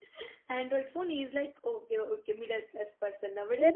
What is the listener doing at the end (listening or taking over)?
taking over